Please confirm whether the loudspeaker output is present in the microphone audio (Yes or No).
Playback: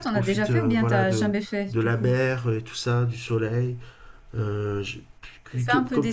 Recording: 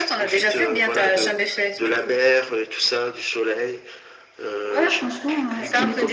Yes